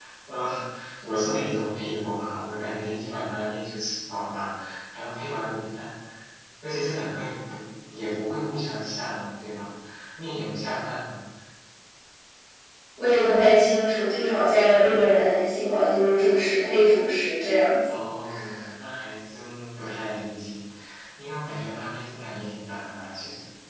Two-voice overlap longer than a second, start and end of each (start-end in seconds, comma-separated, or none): none